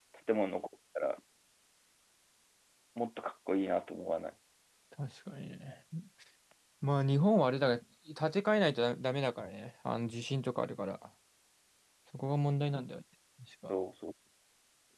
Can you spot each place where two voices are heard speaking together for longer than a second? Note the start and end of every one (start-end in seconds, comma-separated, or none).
none